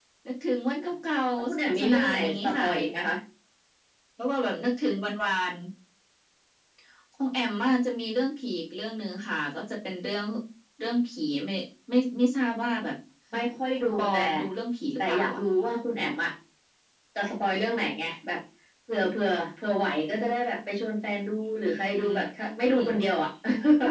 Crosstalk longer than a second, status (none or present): present